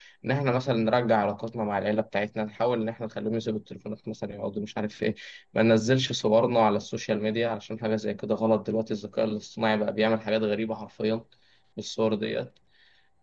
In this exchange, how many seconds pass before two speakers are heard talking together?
none

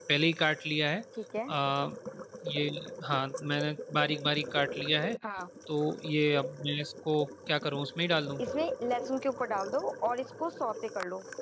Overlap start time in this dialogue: none

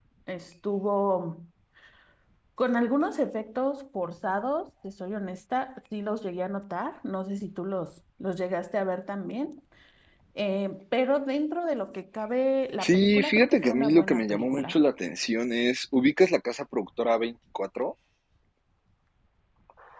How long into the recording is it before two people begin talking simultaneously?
12.8 s

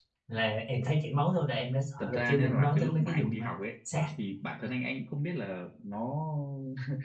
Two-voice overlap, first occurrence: 2.0 s

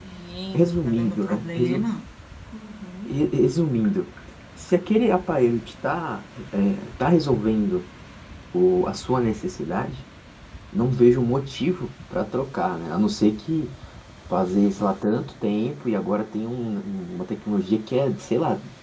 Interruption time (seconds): 0.5 s

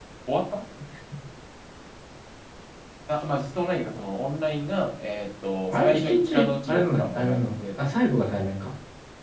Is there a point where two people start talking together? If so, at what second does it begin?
5.7 s

